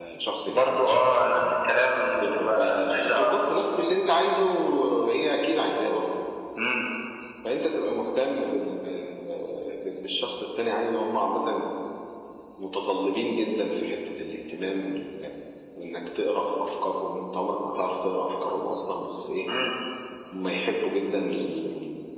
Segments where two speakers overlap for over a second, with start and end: 2.1-3.3

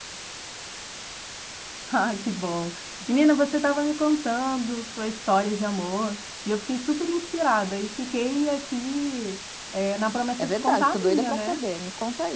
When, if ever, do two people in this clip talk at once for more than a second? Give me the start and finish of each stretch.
10.4-11.6

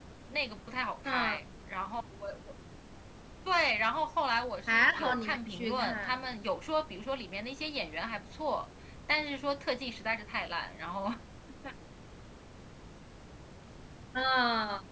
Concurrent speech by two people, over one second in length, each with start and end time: 4.7-6.2

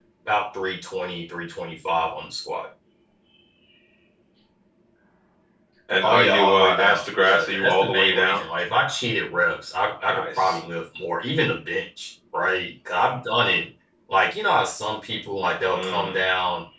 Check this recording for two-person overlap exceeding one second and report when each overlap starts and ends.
6.0-8.4

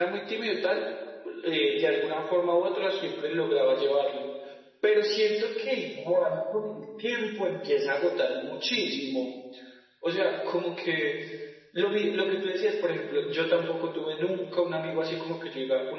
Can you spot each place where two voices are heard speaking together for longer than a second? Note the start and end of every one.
none

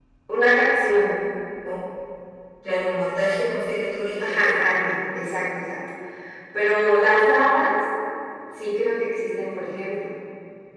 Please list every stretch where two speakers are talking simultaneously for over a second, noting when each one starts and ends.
none

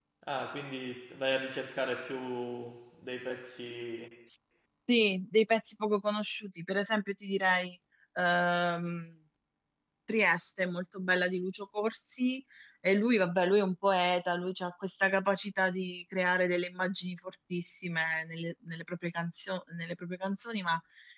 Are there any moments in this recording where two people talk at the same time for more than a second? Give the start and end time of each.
none

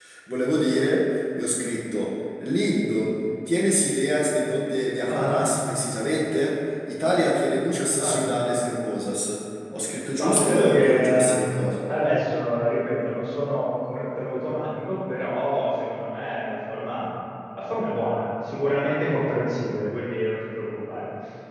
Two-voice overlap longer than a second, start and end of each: 10.2-11.5

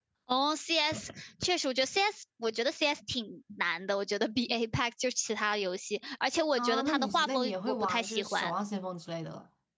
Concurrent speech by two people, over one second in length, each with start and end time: 6.6-8.5

